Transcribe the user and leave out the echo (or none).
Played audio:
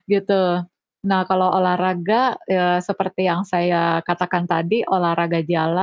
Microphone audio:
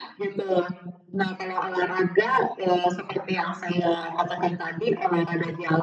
none